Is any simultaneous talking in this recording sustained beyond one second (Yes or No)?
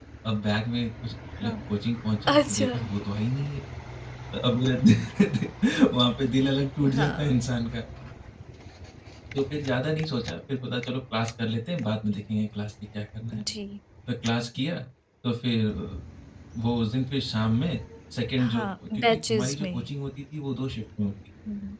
Yes